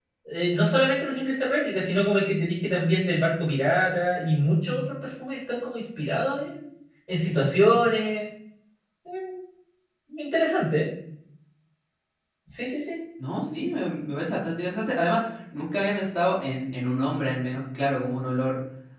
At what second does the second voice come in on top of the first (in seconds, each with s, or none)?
none